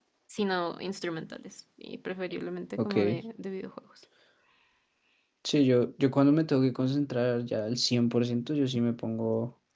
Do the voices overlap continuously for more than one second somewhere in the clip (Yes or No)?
No